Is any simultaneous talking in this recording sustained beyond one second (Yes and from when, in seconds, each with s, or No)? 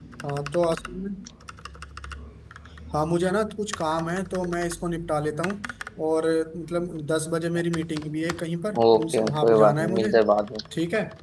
Yes, from 8.7 s